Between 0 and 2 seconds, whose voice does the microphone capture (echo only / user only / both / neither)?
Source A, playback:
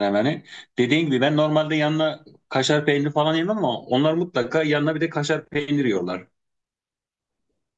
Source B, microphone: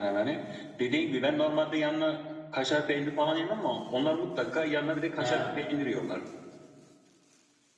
echo only